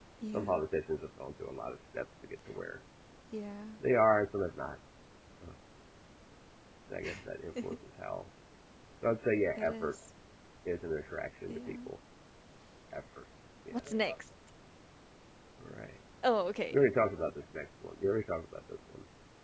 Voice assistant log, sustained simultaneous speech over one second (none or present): none